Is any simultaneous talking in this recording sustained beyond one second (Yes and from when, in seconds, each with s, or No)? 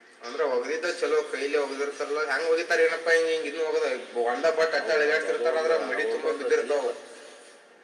Yes, from 4.8 s